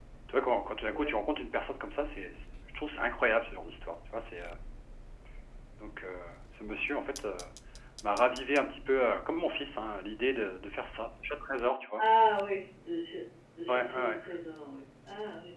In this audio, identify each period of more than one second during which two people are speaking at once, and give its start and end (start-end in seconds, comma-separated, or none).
none